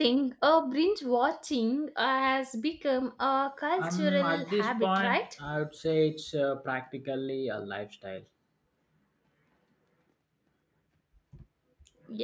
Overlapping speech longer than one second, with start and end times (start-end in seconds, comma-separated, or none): 3.8-5.3